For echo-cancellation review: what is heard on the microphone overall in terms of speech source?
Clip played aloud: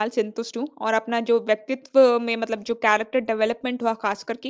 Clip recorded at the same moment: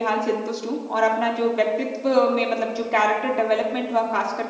echo only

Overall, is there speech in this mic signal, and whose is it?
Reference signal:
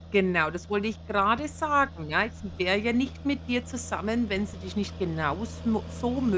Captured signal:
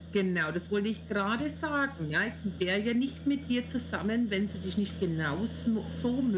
echo only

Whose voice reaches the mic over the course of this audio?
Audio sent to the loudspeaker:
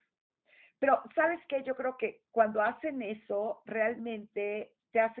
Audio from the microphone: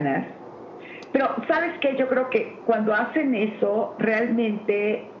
echo only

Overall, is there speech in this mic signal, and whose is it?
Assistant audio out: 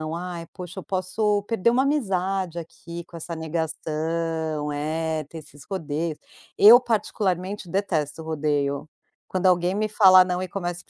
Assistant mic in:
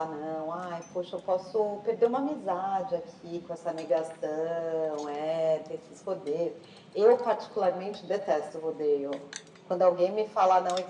echo only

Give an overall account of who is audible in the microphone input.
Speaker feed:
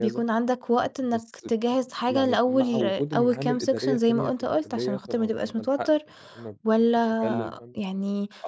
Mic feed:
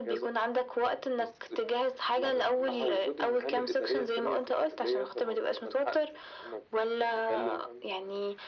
echo only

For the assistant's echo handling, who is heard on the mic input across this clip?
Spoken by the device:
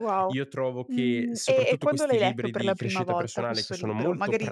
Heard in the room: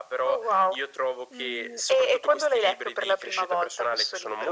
echo only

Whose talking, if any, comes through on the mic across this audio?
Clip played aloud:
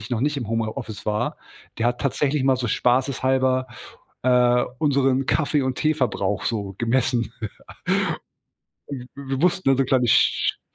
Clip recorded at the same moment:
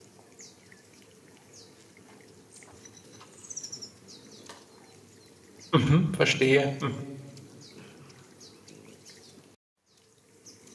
user only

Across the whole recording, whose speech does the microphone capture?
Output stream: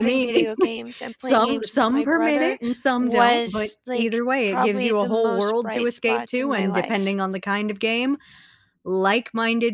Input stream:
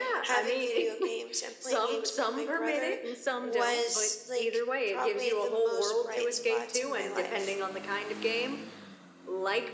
echo only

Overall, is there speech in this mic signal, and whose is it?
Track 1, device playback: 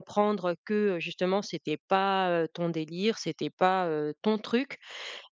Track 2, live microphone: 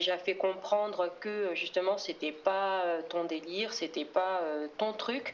echo only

